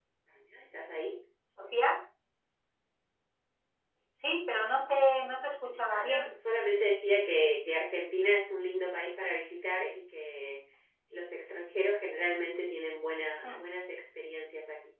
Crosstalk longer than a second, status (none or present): none